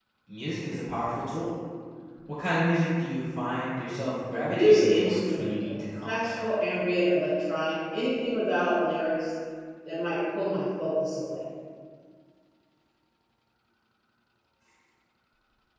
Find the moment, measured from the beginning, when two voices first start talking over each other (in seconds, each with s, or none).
4.6 s